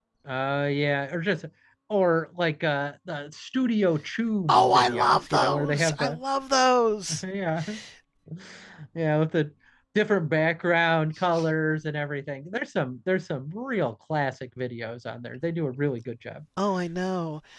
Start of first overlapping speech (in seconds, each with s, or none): 4.5 s